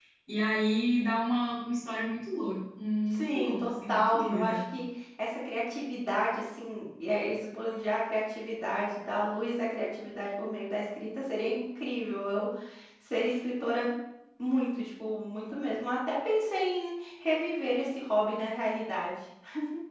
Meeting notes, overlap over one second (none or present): present